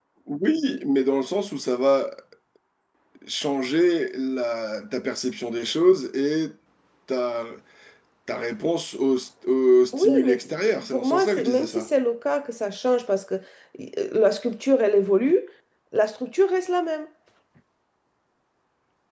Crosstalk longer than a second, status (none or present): present